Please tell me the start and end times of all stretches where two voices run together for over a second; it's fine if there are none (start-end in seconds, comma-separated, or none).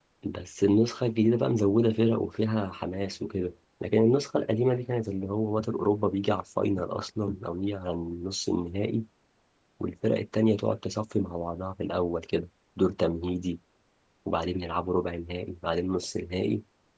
none